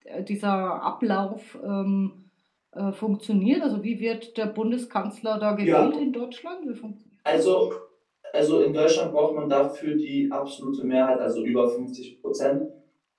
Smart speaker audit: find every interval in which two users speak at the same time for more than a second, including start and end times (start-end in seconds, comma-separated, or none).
none